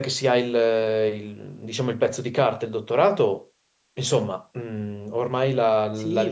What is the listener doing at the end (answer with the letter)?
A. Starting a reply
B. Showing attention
A